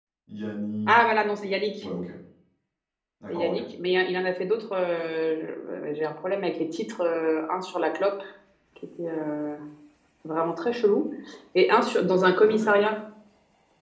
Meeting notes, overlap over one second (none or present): none